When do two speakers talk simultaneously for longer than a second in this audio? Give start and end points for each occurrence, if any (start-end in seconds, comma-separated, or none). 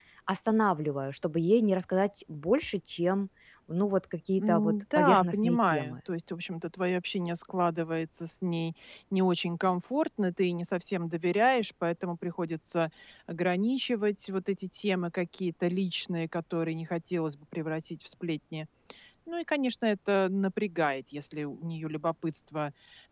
4.4-6.0